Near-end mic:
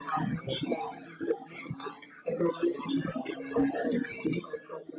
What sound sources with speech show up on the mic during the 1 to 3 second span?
echo only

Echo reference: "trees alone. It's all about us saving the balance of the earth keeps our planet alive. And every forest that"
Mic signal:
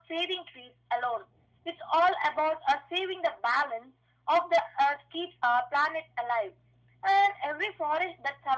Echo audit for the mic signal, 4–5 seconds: echo only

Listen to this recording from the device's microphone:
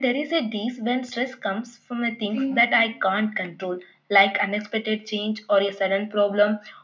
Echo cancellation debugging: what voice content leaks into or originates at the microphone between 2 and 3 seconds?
both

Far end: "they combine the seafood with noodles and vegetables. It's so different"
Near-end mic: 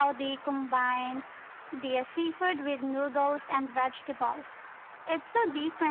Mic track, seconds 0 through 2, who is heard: echo only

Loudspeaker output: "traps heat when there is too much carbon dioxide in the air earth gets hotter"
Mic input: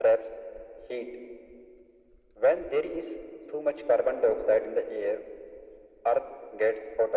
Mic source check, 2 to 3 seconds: echo only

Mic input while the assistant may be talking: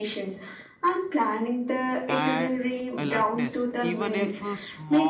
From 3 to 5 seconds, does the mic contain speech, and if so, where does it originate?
both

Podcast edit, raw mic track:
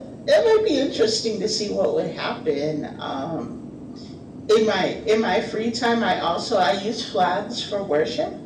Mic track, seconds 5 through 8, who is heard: echo only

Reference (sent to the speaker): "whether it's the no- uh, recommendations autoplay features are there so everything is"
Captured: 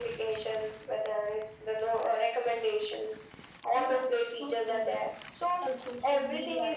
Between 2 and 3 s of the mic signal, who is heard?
echo only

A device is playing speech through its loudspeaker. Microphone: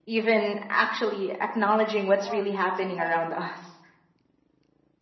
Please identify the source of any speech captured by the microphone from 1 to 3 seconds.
both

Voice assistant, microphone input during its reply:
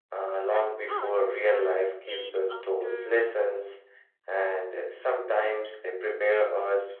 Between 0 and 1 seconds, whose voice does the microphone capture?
both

